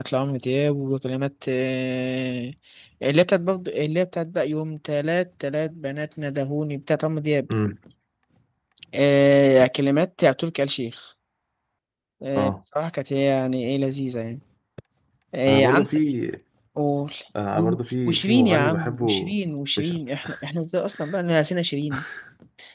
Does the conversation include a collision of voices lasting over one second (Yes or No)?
Yes